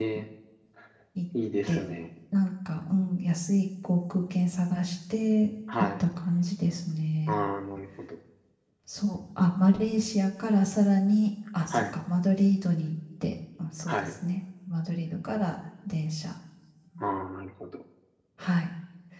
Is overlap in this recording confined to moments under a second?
Yes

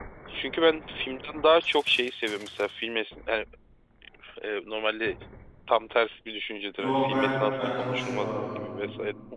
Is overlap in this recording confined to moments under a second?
No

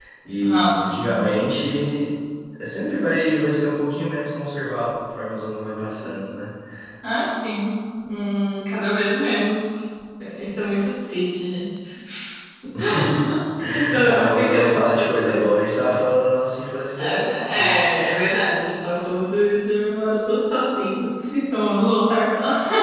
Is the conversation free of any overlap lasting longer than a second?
No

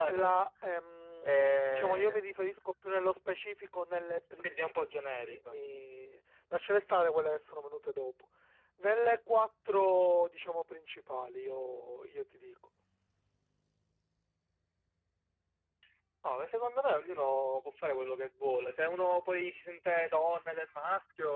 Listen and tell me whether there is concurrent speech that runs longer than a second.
No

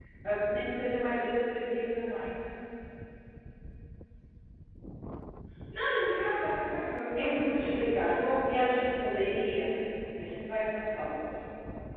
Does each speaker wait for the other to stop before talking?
No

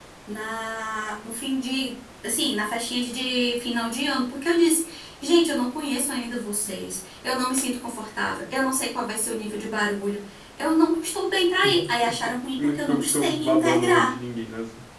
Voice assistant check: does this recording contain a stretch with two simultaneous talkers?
Yes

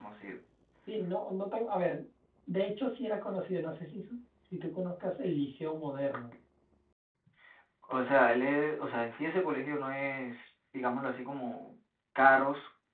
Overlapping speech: No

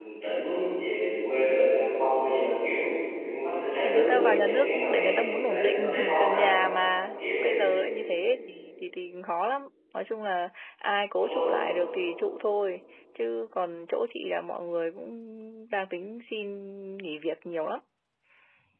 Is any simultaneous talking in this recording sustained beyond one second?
Yes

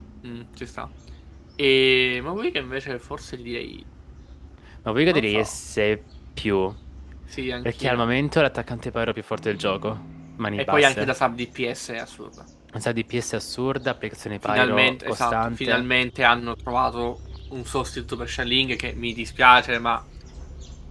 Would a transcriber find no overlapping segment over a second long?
No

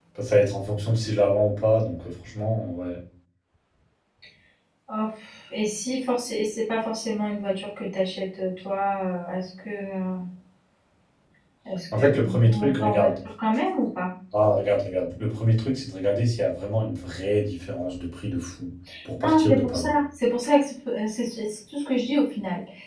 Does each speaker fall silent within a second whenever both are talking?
No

